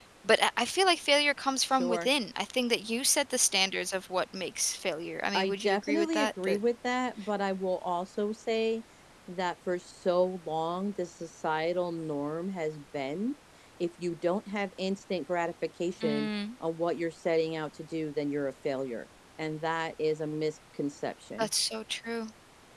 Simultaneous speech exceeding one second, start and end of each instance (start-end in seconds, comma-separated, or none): 5.3-6.6